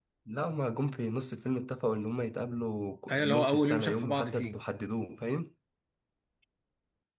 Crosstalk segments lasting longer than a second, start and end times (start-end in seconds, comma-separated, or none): 3.1-4.6